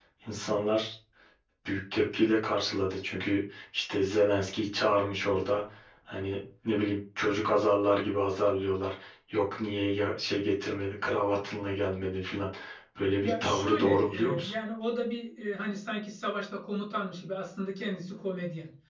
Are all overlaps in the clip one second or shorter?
No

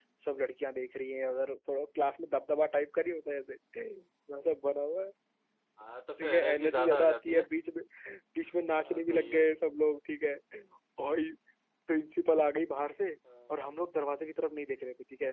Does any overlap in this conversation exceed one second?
Yes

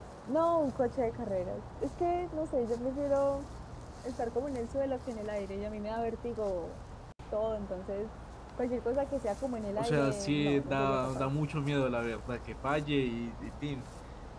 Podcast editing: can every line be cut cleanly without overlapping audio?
No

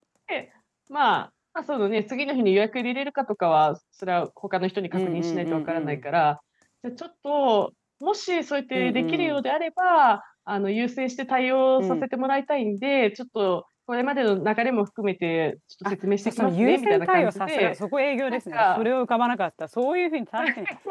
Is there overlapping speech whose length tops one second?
Yes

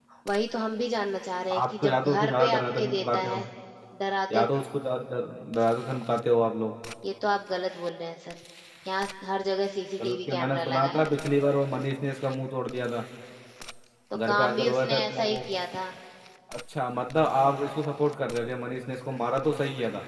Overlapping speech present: Yes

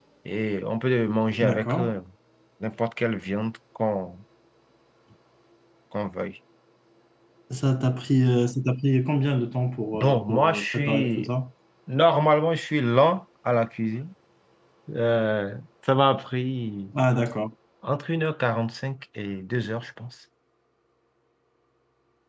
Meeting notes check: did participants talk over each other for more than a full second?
Yes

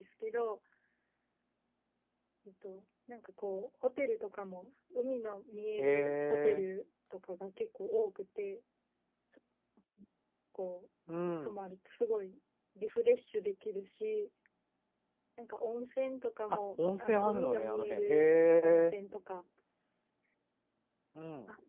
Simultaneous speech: Yes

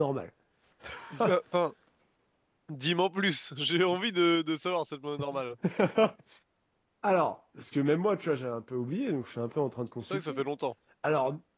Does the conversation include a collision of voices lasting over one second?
No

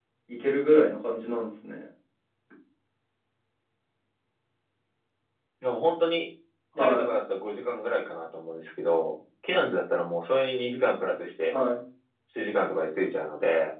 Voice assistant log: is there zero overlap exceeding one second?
Yes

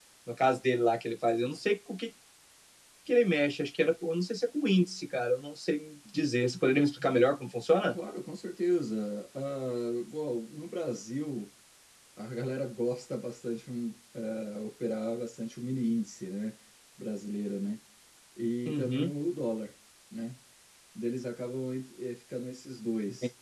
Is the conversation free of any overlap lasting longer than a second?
Yes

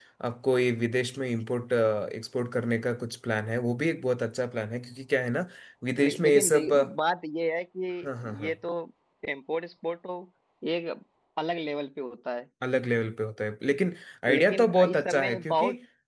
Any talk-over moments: Yes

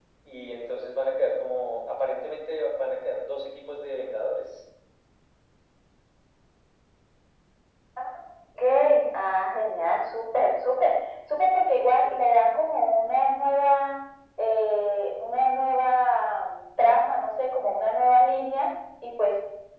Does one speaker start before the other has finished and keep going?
No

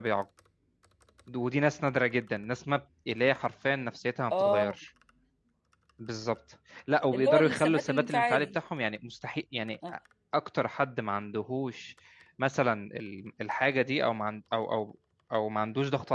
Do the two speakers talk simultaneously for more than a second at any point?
Yes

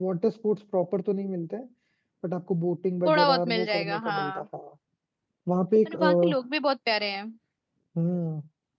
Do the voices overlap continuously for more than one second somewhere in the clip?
Yes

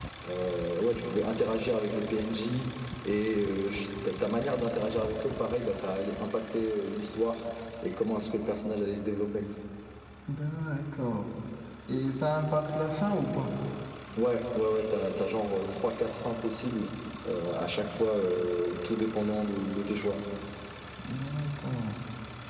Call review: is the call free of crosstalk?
Yes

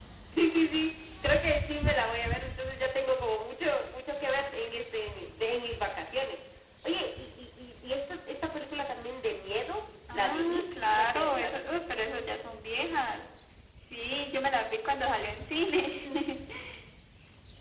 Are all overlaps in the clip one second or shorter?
No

